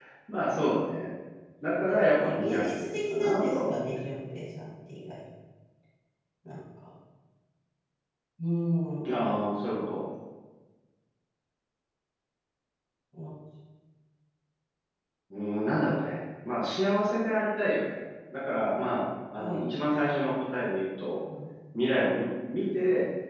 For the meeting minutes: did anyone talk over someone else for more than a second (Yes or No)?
Yes